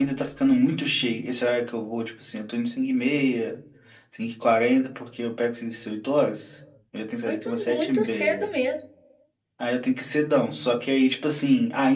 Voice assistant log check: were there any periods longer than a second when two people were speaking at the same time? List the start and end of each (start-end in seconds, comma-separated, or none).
7.2-8.5